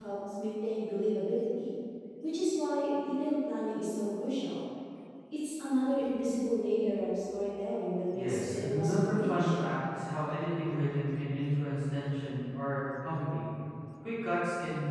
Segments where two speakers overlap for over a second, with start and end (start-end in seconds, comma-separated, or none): 8.1-9.5